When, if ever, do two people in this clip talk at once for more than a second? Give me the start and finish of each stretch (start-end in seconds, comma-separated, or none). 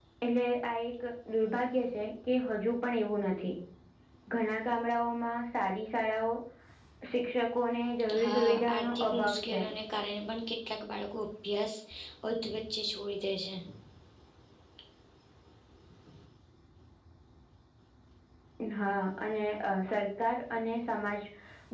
8.2-9.7